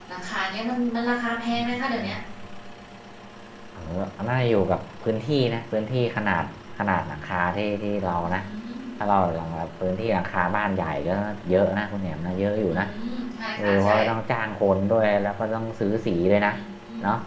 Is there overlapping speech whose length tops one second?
No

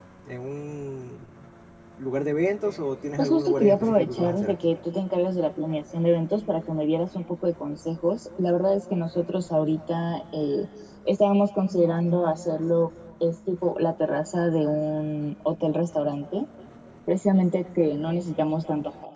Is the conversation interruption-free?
No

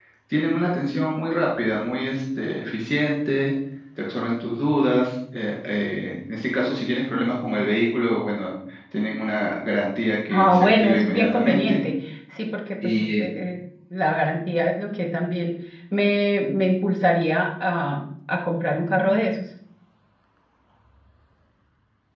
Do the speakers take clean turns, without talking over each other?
No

